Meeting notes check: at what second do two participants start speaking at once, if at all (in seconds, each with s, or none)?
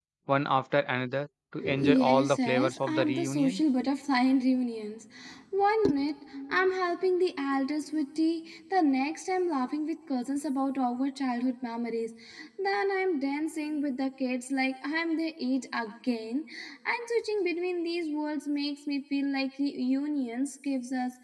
1.6 s